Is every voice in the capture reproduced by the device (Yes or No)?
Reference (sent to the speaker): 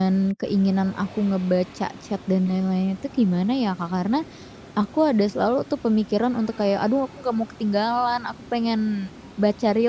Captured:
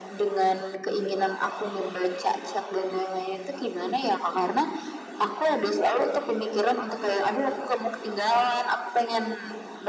Yes